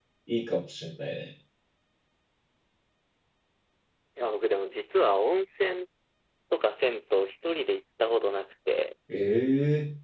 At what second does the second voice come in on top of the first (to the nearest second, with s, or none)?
none